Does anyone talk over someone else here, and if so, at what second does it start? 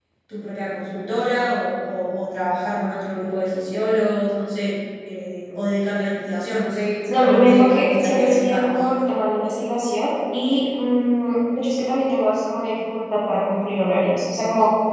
7.1 s

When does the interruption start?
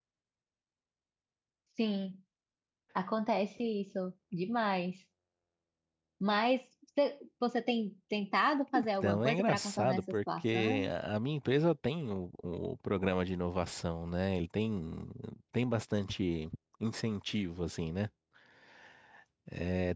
8.8 s

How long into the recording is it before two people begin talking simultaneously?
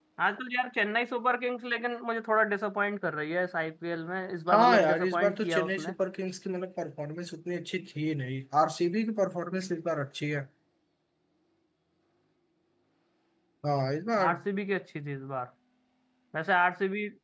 4.5 s

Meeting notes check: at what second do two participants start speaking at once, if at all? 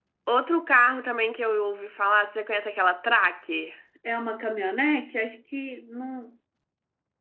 none

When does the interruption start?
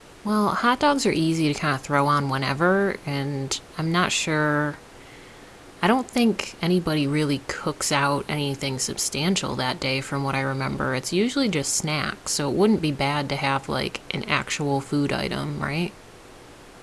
none

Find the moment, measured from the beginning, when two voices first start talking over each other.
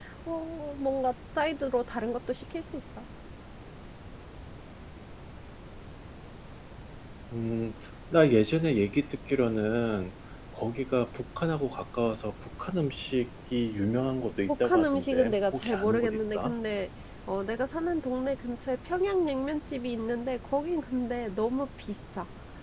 14.5 s

